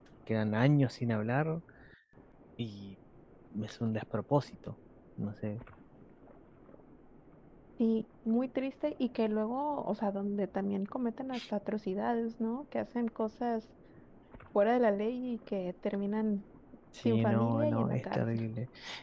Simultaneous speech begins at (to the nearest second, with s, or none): 17 s